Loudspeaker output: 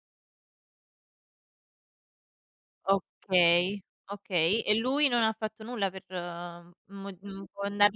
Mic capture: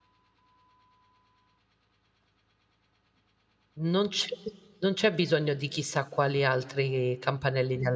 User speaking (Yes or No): Yes